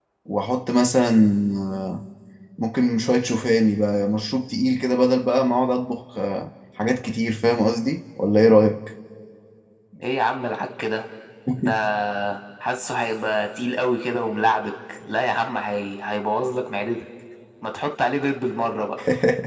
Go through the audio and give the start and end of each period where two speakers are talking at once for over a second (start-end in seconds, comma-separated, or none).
none